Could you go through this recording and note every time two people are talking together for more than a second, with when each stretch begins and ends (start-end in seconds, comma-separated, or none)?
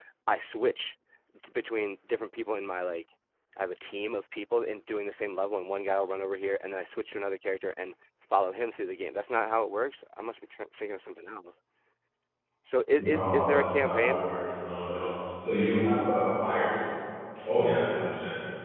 13.0-14.3